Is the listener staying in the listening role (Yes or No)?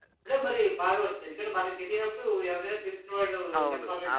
No